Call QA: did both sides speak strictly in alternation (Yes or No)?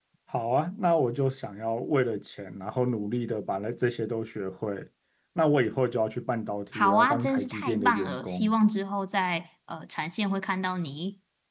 No